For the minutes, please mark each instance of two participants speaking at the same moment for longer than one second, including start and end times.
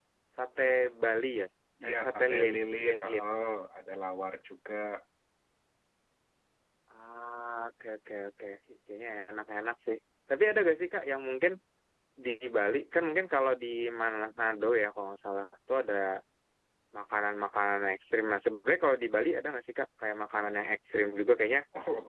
1.8-3.2

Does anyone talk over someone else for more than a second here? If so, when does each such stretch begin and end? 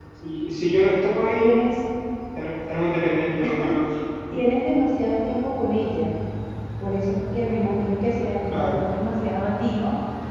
none

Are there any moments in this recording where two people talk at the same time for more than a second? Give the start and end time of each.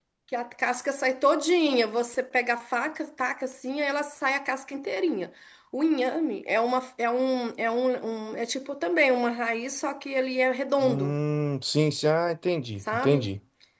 none

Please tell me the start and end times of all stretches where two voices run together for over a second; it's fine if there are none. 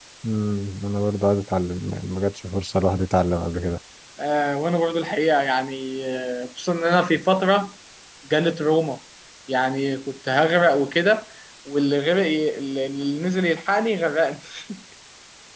none

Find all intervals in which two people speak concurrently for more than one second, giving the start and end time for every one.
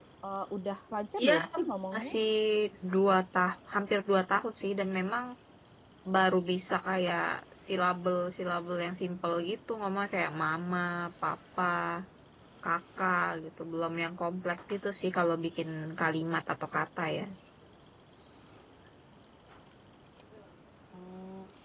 none

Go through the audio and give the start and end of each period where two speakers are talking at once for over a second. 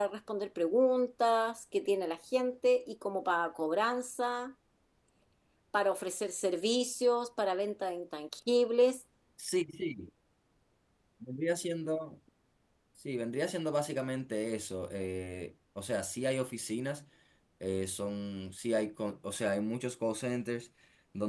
none

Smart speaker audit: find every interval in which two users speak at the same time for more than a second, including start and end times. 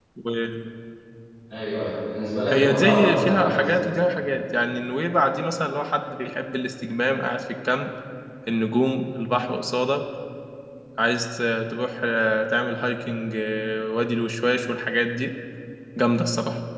2.5-3.7

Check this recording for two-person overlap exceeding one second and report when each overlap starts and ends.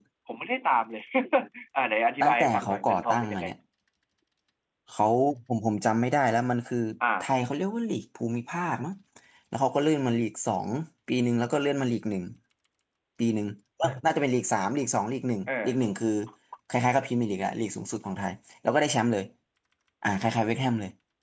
2.2-3.5

